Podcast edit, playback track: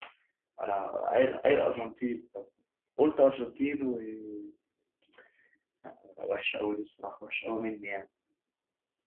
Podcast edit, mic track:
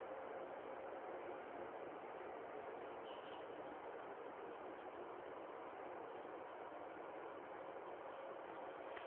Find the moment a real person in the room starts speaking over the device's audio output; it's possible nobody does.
none

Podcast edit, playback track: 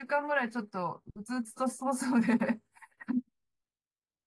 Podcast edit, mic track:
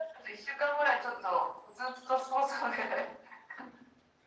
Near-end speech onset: none

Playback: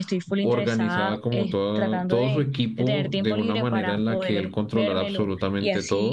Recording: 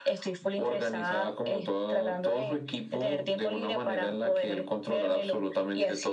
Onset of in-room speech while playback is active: none

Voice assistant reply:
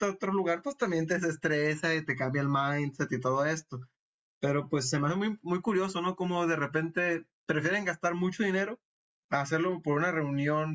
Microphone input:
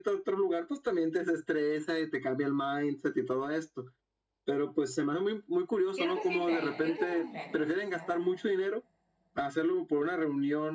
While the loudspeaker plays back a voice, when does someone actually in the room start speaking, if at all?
5.9 s

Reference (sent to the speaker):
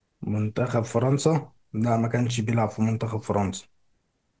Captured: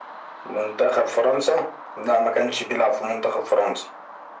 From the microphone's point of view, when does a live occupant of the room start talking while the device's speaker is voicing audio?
none

